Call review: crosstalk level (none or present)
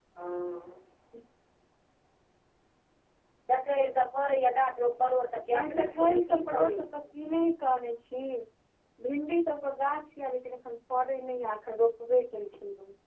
present